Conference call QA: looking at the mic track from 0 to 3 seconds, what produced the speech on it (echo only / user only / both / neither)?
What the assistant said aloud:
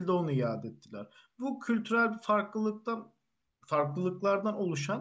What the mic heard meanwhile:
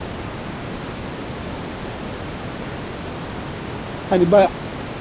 neither